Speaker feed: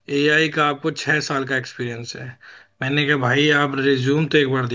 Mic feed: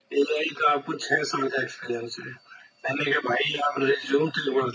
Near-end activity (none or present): none